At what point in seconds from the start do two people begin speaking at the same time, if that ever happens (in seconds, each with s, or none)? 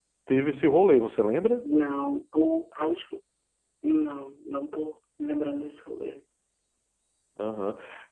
none